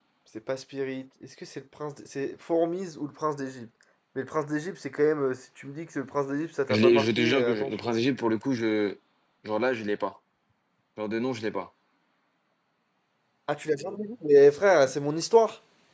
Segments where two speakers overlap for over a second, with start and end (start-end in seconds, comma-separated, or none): 6.7-8.0